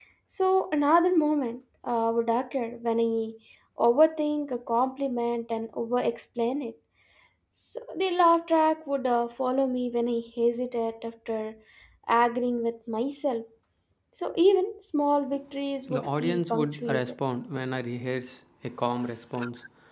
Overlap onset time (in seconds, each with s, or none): 15.9 s